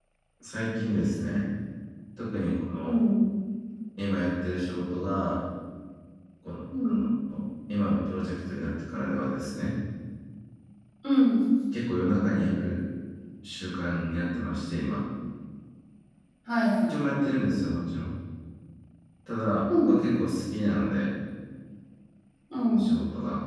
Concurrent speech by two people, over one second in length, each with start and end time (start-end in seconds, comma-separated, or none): none